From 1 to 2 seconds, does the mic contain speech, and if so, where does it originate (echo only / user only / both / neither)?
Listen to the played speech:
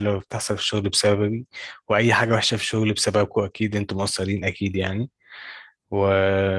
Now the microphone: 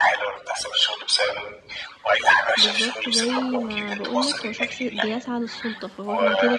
echo only